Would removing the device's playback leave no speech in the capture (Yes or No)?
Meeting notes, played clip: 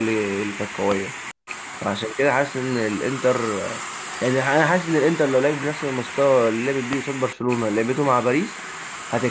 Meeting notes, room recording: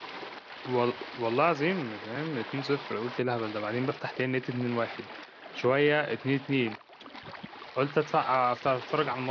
No